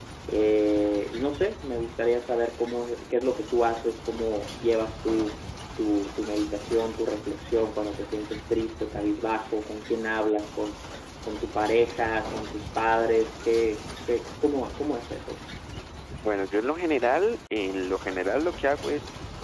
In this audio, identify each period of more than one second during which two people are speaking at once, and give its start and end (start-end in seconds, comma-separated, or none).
none